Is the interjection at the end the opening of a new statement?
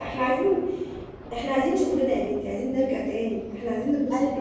Yes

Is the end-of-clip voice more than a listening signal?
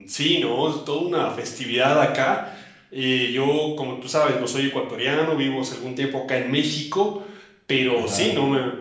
No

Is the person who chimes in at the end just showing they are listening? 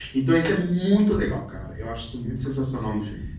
No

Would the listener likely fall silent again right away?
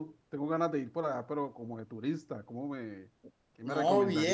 No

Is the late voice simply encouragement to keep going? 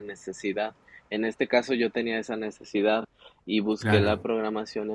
Yes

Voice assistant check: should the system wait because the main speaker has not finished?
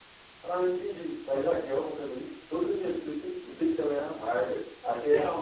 No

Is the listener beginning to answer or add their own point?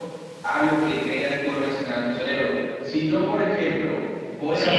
Yes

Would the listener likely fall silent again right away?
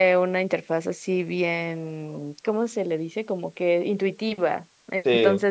Yes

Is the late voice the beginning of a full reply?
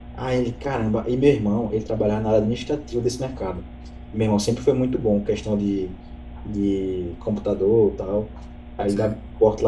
No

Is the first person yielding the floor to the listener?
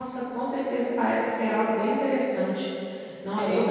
No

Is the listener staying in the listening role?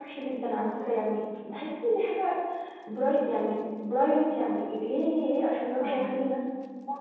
Yes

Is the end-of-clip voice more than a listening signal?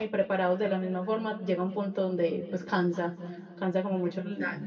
Yes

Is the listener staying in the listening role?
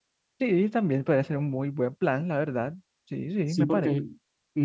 No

